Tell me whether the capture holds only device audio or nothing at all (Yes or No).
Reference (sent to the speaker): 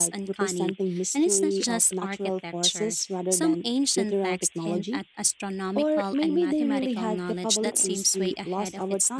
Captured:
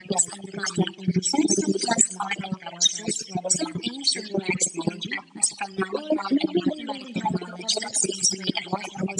Yes